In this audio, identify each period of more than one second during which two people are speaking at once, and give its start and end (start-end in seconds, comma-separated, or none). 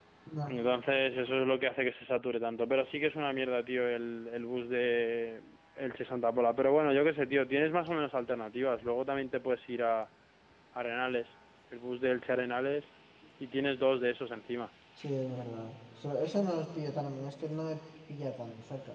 none